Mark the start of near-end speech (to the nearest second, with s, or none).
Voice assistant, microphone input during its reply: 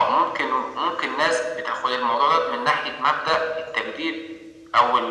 none